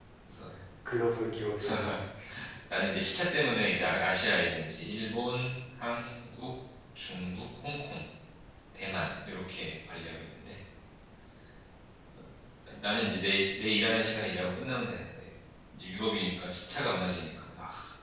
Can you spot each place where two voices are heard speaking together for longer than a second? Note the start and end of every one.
none

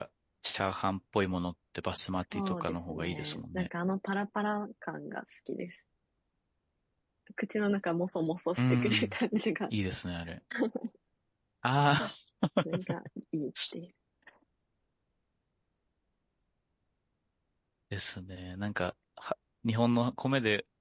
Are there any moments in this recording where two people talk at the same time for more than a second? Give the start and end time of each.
2.3-3.7

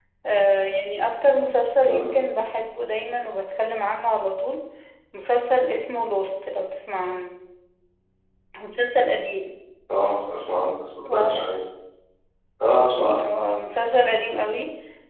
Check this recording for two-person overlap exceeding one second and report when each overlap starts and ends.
none

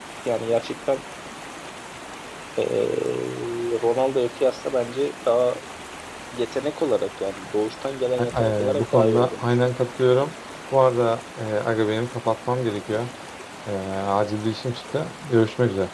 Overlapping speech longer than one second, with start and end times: 8.2-9.6

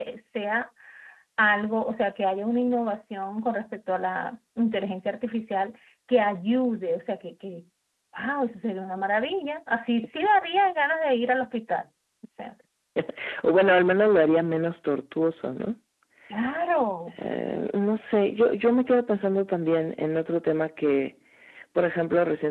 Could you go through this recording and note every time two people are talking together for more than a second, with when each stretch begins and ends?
none

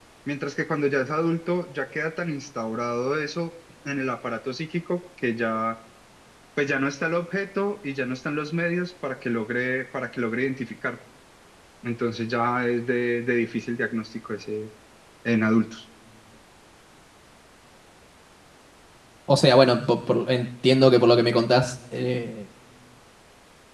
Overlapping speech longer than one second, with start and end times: none

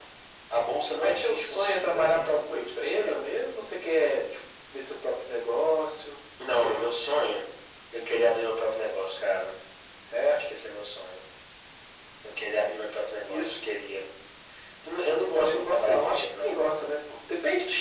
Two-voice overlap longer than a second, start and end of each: 0.9-3.3, 15.2-16.6

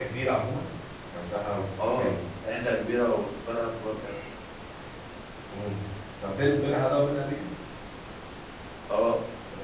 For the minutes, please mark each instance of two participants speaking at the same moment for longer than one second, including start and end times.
none

